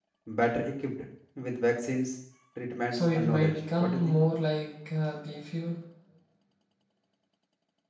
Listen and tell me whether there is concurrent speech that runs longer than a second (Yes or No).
Yes